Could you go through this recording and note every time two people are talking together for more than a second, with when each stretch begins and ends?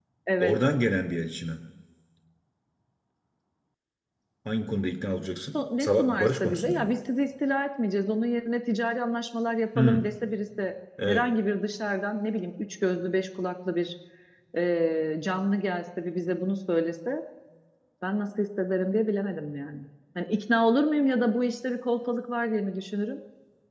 5.5-6.9

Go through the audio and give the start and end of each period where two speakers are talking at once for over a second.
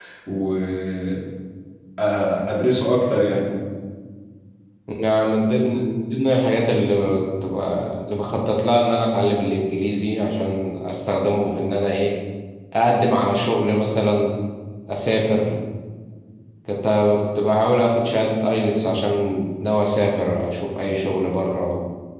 none

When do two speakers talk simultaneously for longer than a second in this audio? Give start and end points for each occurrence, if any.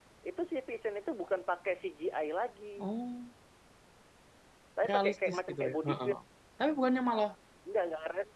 4.9-6.1

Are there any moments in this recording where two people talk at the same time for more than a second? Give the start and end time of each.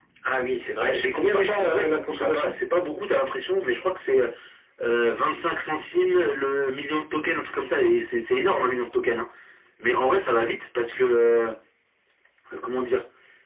0.8-2.5

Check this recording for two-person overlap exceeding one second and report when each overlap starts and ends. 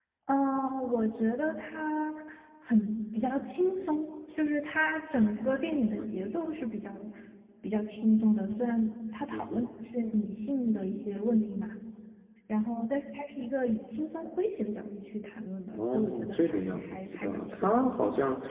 15.7-17.7

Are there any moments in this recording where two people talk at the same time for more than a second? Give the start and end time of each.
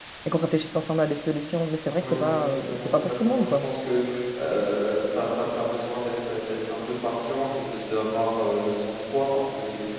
2.0-3.7

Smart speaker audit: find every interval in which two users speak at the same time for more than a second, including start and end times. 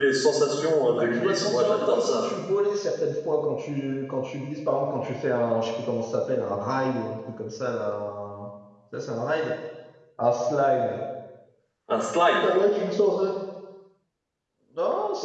1.0-2.3

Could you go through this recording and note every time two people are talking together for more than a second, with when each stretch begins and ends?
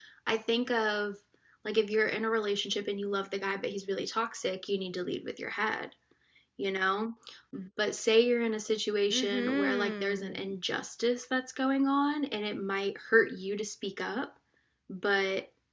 9.1-10.6

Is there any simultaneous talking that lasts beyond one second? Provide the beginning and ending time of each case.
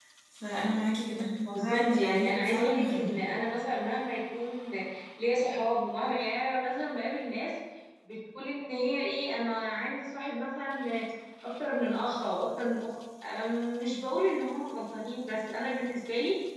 1.6-3.1

